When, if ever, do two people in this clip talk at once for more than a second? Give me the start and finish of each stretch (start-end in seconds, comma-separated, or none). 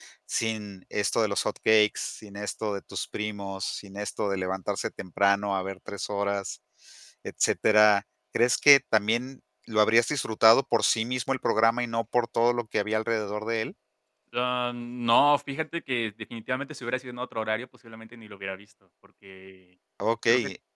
none